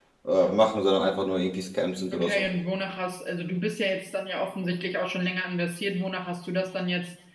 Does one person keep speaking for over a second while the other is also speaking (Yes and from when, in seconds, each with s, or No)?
No